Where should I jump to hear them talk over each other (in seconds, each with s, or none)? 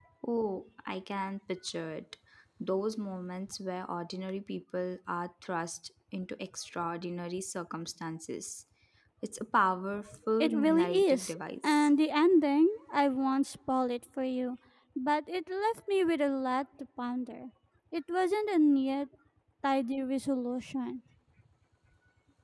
10.4 s